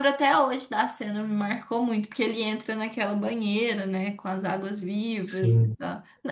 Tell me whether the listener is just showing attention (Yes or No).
Yes